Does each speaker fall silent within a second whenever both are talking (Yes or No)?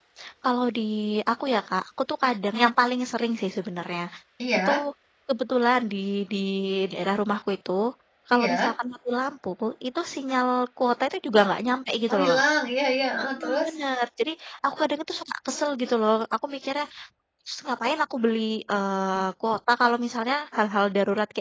Yes